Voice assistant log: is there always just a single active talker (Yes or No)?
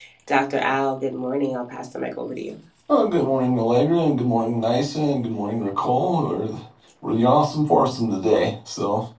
Yes